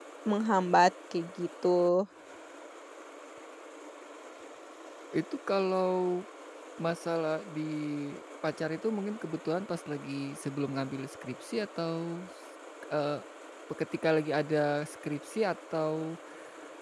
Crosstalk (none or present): none